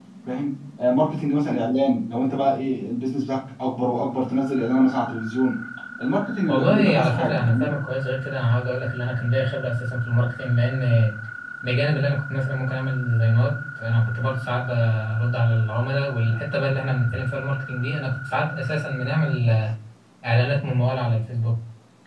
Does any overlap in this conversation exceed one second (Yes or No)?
Yes